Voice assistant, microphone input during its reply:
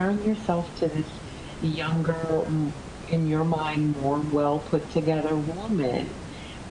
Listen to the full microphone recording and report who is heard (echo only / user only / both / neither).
echo only